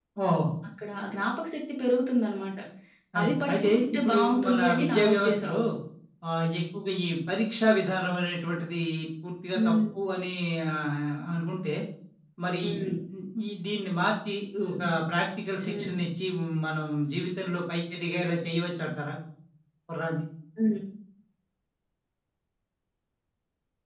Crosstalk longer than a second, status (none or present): present